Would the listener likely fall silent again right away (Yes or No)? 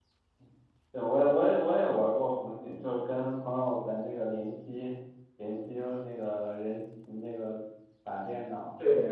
No